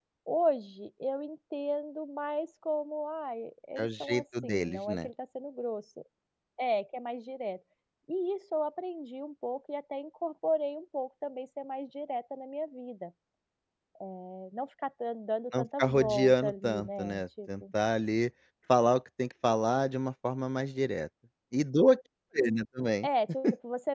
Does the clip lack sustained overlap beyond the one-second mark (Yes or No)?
No